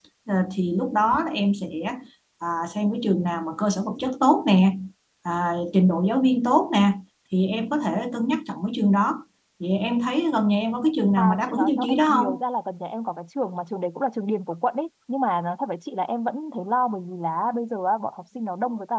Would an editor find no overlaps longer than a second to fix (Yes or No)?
No